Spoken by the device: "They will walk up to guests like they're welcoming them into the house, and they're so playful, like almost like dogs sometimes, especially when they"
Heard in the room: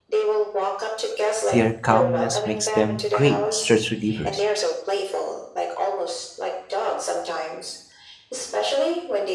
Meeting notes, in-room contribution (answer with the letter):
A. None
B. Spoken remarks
B